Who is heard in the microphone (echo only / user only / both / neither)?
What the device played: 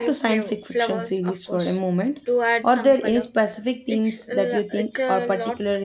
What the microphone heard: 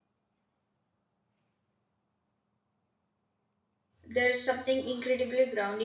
user only